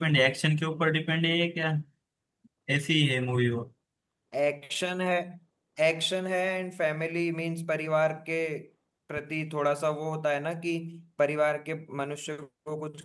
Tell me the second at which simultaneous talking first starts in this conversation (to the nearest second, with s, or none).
none